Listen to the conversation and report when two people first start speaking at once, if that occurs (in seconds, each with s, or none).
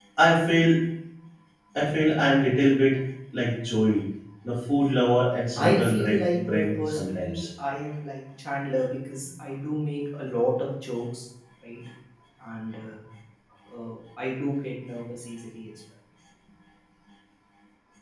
5.6 s